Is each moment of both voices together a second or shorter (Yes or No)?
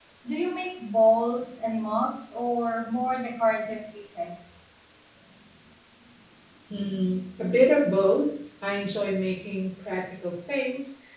Yes